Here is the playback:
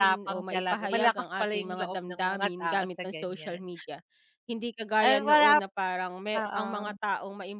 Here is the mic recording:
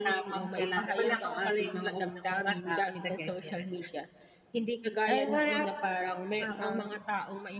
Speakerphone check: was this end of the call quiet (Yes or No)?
Yes